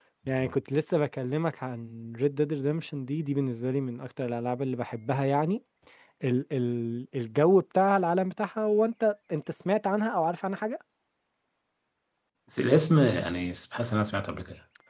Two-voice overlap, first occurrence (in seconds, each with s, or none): none